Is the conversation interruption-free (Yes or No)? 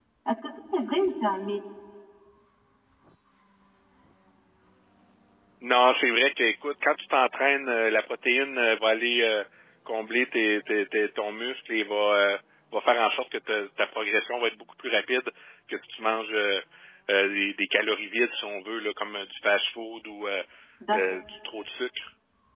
Yes